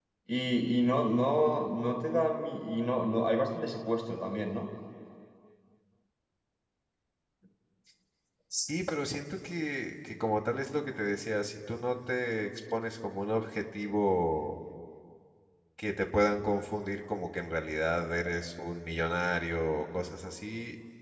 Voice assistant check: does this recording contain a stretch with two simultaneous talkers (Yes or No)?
No